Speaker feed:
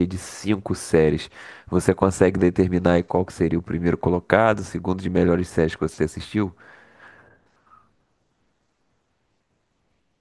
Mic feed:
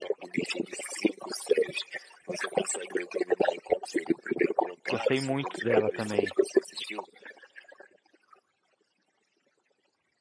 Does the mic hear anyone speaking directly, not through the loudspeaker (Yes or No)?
Yes